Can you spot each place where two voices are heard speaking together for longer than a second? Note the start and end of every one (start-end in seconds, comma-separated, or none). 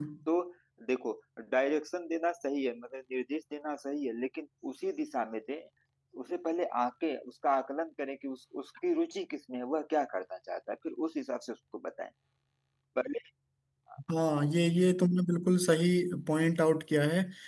none